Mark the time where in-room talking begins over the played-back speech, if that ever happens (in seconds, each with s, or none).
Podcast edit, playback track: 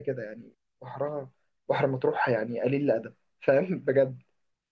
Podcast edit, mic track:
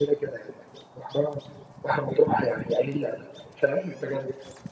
none